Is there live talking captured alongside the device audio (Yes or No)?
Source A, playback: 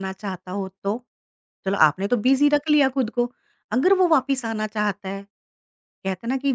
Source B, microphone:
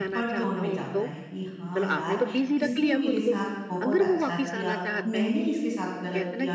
Yes